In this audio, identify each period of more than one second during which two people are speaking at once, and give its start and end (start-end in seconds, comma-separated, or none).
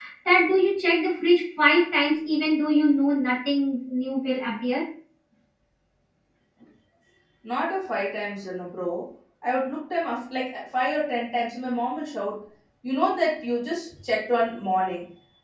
none